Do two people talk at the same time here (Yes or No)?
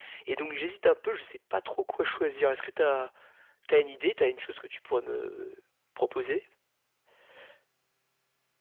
No